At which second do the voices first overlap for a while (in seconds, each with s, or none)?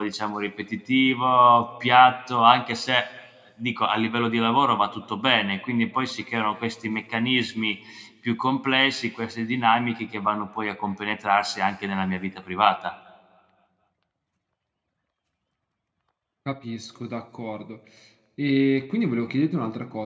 none